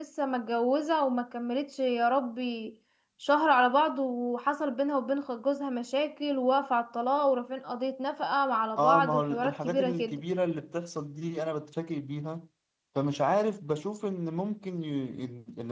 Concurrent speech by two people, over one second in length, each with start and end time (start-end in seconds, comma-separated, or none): 8.8-10.2